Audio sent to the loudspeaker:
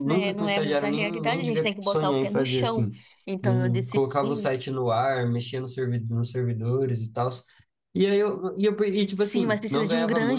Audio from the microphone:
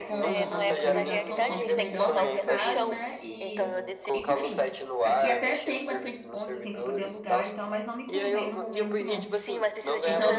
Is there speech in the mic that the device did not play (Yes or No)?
Yes